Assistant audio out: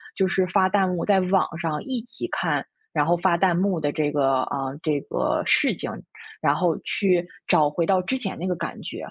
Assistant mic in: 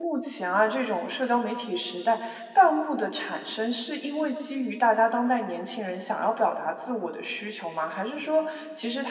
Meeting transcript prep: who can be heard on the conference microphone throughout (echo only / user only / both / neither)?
user only